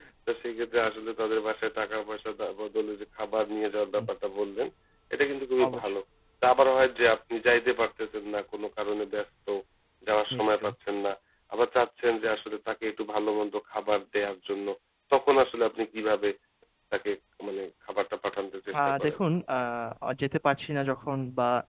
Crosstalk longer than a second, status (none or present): none